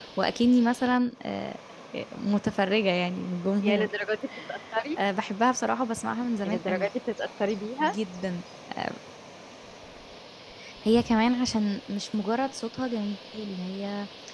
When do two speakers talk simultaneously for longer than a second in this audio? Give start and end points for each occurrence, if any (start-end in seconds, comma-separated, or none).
none